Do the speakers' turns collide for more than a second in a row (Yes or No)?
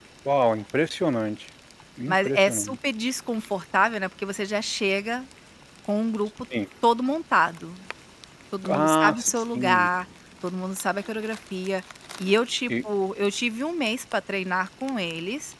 Yes